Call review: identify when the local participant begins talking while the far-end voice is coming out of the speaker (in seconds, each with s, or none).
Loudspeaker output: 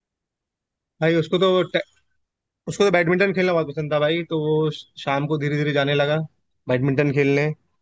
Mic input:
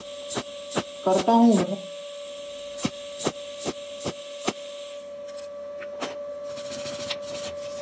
1.0 s